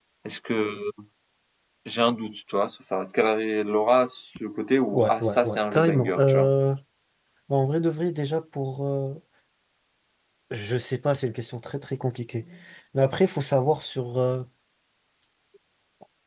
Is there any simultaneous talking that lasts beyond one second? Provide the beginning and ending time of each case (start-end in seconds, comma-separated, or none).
4.9-6.5